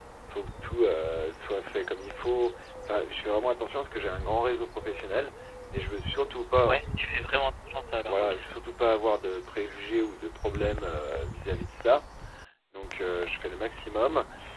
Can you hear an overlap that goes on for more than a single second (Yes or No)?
No